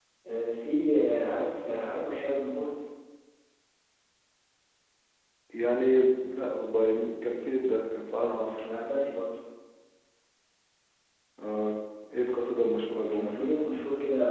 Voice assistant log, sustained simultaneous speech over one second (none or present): none